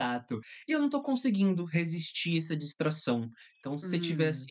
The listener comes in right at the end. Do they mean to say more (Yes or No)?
No